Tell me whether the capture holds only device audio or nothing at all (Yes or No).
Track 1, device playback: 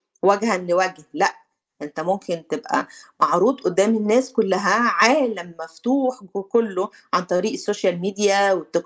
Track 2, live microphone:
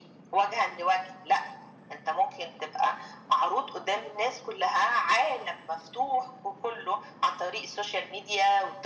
Yes